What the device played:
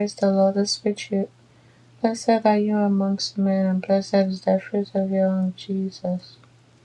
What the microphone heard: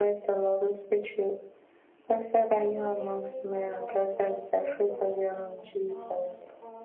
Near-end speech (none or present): present